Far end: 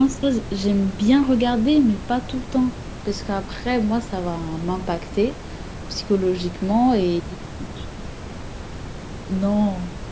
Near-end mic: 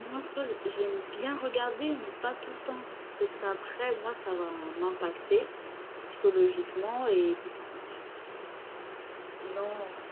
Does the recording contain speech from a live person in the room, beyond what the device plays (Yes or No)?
No